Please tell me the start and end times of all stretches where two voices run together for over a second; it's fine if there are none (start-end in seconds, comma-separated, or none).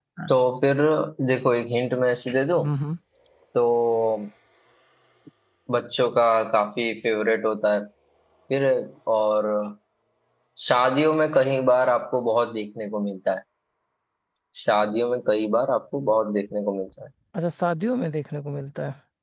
none